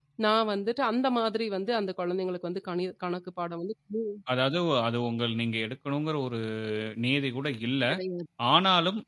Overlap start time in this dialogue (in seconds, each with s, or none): none